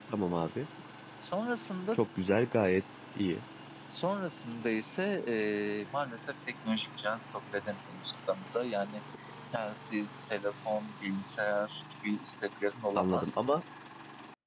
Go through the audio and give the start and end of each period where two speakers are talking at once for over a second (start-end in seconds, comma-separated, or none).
none